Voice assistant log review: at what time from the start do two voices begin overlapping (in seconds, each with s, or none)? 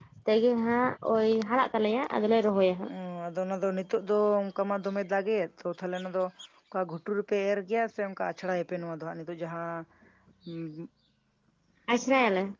none